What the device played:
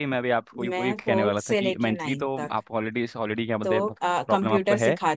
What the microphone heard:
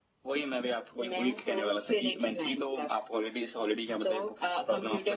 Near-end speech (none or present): none